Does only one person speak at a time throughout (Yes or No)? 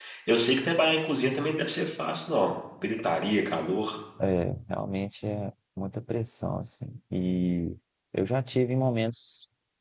Yes